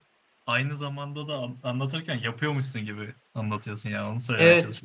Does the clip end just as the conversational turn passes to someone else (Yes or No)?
Yes